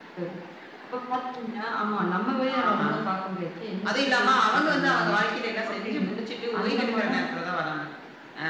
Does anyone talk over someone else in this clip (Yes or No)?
Yes